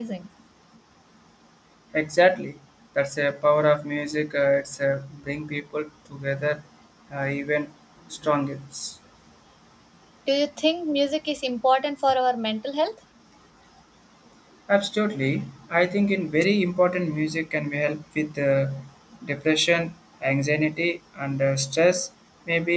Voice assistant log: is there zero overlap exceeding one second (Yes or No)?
Yes